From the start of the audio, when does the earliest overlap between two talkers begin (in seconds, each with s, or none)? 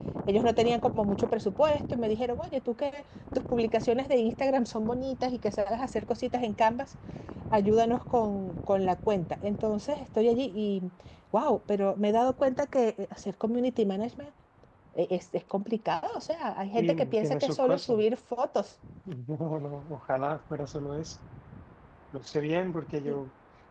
16.8 s